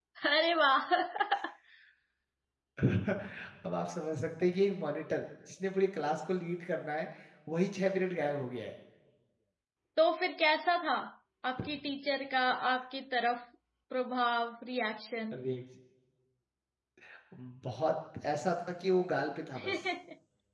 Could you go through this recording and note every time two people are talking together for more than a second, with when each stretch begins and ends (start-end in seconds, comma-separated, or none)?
none